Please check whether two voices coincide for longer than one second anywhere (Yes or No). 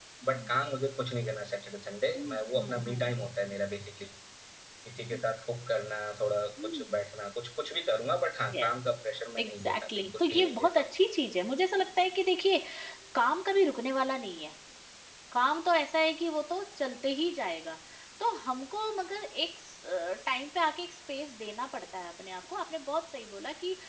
Yes